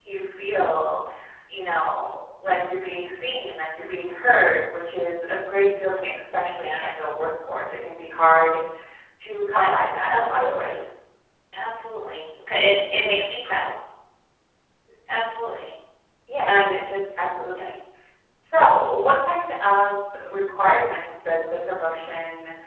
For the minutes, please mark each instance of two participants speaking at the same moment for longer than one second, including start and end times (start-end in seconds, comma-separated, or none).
9.6-10.8